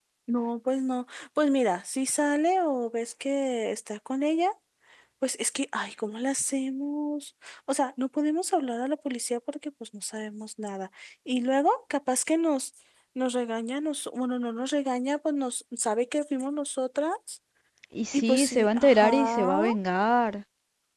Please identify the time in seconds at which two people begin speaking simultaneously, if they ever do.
18.1 s

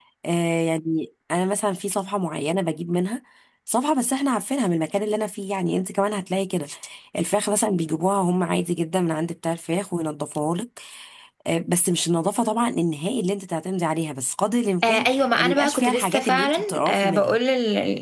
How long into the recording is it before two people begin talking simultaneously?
14.8 s

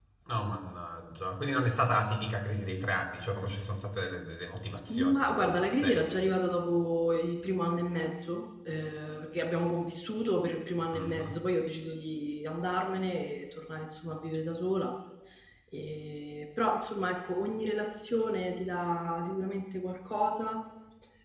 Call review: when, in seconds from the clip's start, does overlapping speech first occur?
4.9 s

